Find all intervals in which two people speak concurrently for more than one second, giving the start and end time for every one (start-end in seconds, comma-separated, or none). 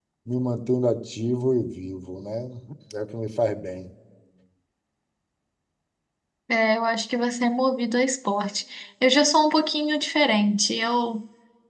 none